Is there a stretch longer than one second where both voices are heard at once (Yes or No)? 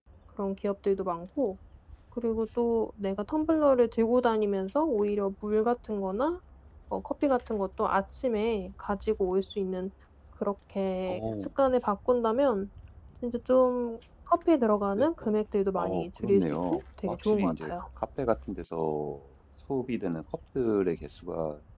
Yes